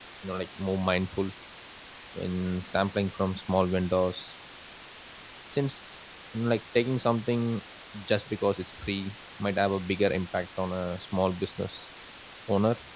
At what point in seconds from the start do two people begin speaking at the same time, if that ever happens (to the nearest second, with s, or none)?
none